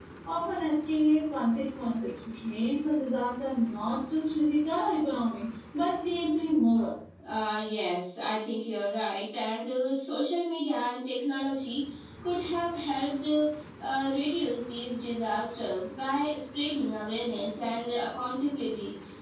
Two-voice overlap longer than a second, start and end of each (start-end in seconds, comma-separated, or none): none